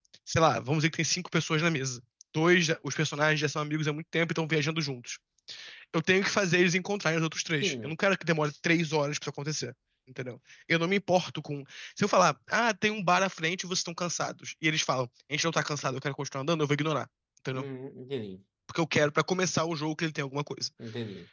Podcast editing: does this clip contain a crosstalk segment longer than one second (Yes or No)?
No